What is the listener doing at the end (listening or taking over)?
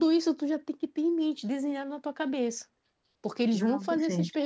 listening